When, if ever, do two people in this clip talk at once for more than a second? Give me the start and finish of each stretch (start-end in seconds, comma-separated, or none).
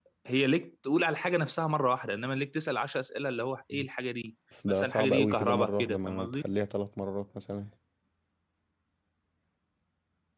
4.7-6.4